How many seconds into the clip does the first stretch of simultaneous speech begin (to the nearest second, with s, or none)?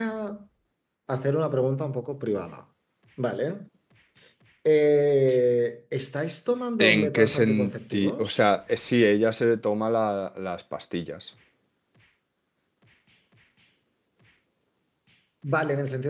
7 s